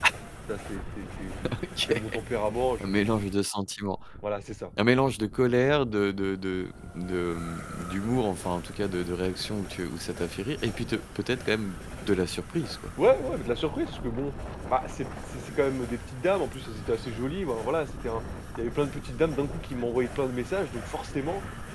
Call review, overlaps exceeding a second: none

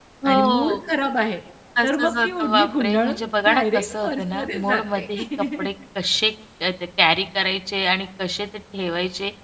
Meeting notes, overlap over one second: present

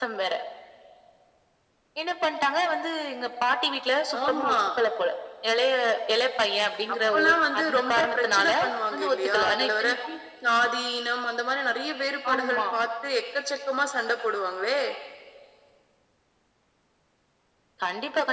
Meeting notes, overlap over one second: present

